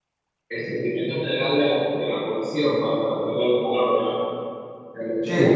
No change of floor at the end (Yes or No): No